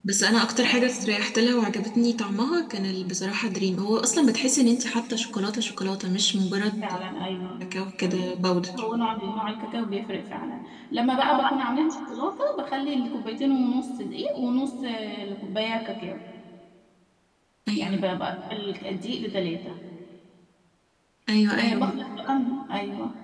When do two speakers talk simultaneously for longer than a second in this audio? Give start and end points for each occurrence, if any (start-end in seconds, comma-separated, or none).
none